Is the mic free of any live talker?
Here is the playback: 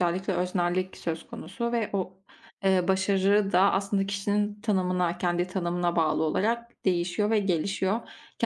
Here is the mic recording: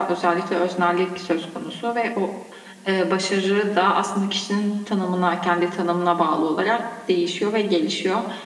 Yes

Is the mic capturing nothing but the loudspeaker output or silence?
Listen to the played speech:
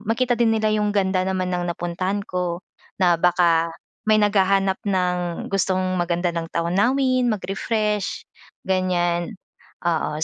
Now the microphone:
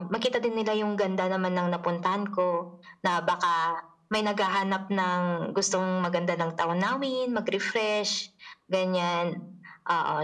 Yes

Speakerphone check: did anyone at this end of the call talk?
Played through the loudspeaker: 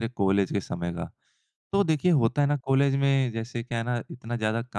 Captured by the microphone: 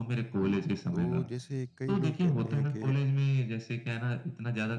Yes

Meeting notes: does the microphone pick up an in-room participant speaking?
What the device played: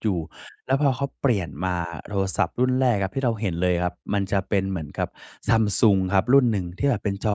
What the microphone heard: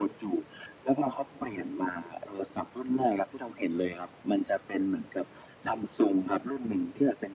No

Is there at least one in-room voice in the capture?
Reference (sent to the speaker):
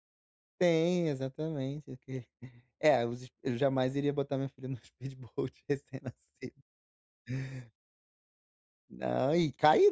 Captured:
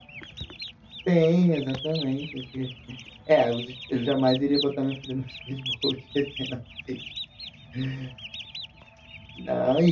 No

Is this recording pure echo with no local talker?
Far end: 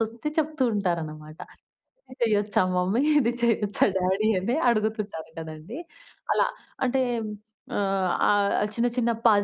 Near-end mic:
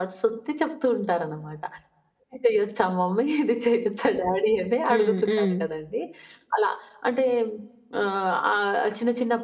No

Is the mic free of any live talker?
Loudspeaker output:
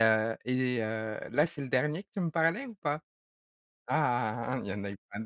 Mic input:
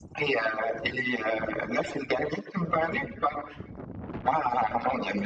Yes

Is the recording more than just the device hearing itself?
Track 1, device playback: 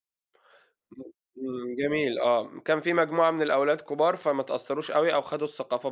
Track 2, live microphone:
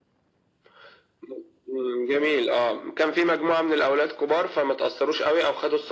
No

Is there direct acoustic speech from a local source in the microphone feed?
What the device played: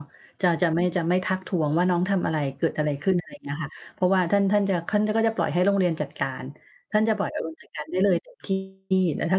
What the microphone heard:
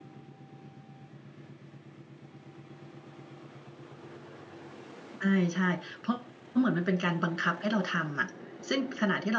Yes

